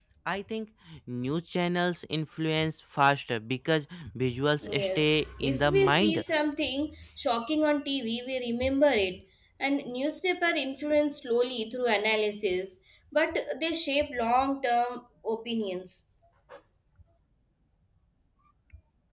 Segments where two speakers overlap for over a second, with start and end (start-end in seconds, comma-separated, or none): 4.7-6.2